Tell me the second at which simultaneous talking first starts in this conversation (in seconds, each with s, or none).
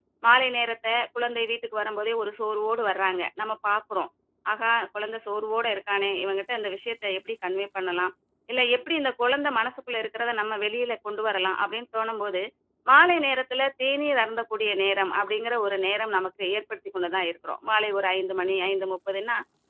none